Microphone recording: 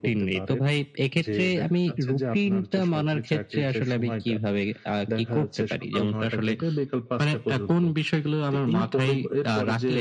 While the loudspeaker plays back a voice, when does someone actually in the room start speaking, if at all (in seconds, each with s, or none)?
none